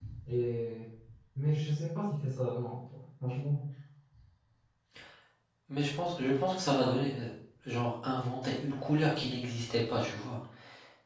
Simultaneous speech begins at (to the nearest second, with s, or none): none